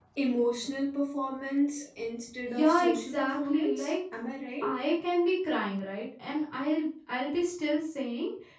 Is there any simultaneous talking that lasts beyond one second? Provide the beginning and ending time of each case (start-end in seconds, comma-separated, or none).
2.6-3.9